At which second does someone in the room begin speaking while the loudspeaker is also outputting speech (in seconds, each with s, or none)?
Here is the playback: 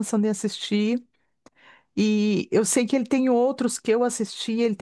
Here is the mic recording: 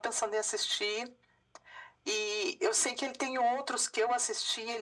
none